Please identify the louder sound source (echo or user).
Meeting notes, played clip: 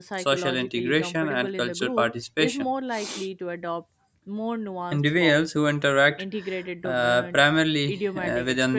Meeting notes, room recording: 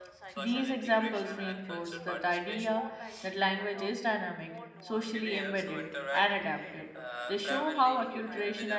user